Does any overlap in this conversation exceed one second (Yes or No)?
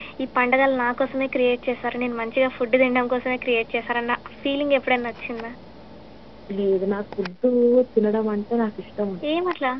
No